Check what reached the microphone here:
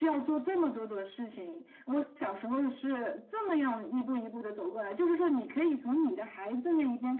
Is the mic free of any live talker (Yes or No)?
Yes